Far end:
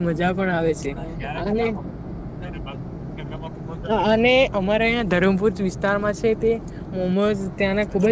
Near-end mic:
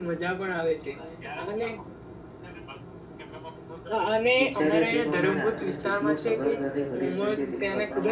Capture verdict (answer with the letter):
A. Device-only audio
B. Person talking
B